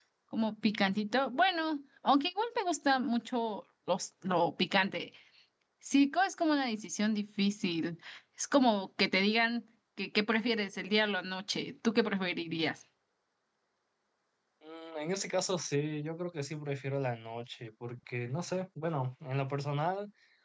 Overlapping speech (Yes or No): No